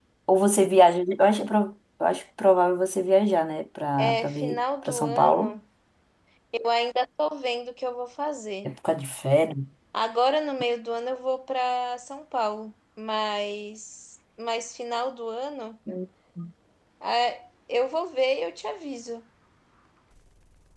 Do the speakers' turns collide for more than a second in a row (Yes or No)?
Yes